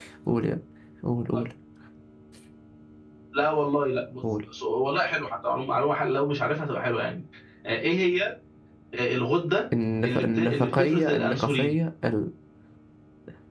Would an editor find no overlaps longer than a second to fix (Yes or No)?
No